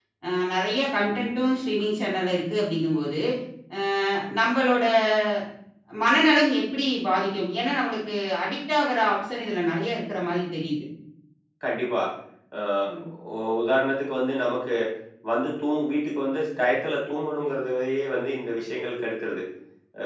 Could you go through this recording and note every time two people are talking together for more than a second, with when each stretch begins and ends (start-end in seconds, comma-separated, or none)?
none